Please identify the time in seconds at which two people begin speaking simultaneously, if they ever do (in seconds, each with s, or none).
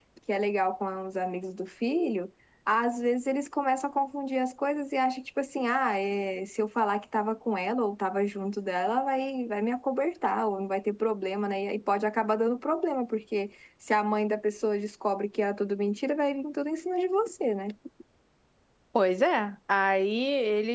none